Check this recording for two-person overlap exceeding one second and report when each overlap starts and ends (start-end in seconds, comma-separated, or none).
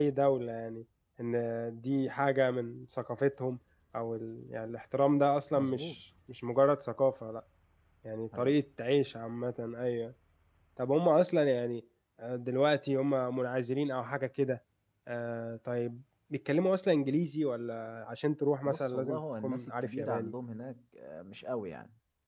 18.6-20.4